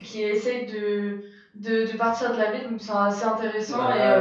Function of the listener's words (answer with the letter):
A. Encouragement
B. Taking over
B